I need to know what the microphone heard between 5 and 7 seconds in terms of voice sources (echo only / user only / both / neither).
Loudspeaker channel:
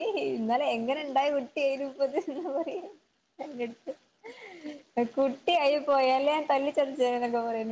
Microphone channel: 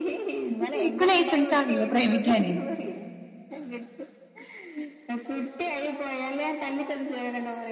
echo only